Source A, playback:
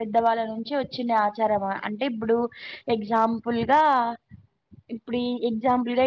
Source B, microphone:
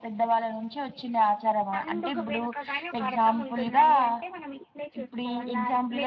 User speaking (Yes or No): Yes